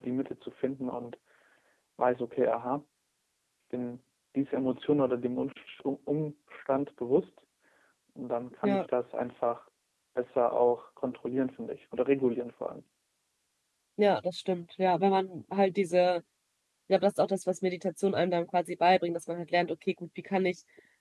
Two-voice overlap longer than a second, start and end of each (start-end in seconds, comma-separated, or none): none